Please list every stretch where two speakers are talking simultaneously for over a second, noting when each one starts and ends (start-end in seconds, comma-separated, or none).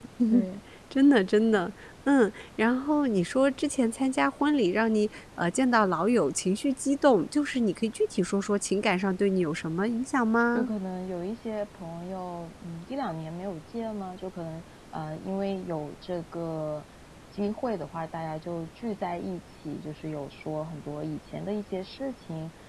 none